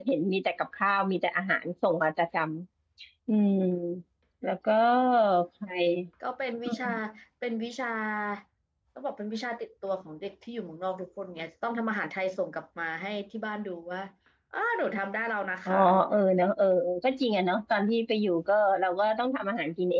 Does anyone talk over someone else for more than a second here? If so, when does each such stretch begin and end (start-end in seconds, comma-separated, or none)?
none